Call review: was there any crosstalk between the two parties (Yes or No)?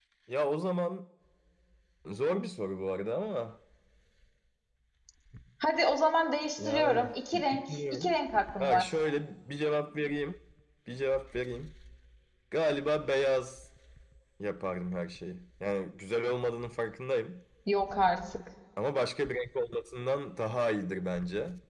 Yes